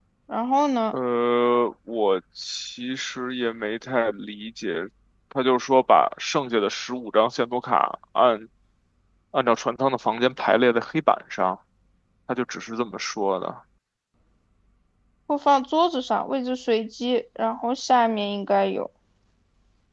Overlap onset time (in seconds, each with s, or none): none